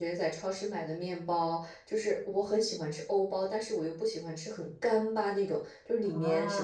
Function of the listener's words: listening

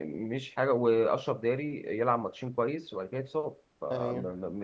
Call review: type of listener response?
listening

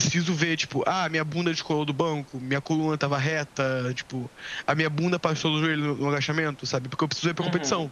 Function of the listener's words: listening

